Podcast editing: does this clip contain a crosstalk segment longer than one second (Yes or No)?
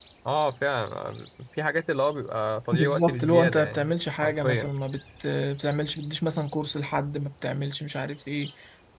Yes